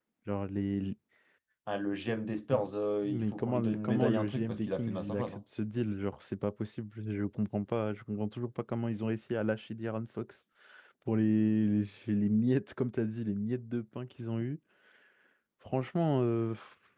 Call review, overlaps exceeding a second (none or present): present